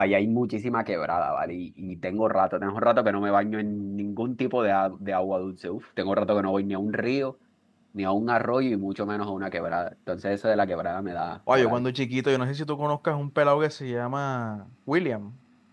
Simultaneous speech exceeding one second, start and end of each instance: none

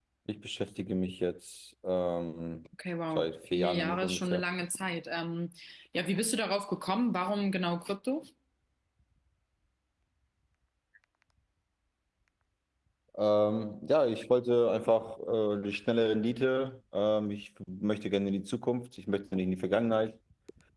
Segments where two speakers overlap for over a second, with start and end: 3.1-4.4

